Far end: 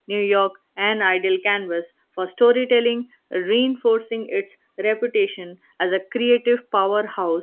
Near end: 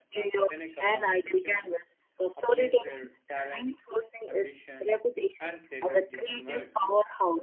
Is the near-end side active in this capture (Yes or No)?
Yes